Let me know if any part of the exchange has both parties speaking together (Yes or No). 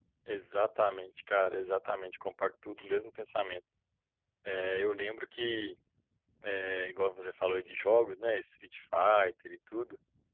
No